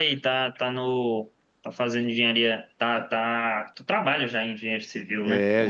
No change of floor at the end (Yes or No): No